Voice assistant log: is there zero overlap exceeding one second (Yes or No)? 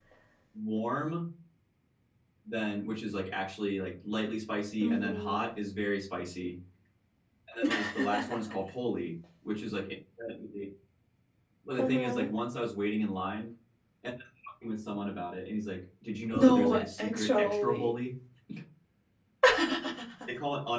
No